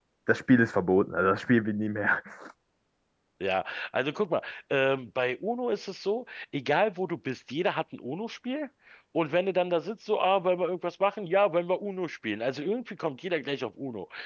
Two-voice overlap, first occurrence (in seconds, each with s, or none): none